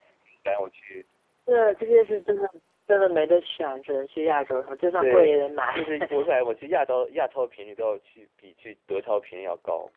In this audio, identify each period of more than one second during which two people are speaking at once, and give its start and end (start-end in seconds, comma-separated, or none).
none